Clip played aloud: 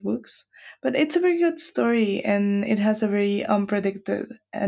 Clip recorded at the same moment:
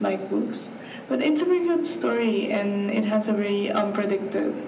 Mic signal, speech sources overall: echo only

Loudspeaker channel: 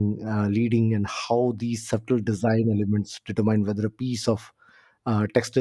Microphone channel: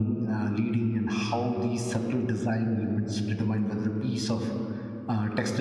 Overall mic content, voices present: echo only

